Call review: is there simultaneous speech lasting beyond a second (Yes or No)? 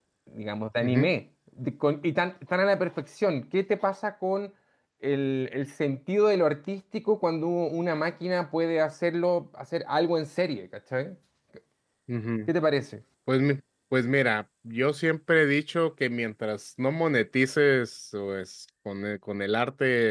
No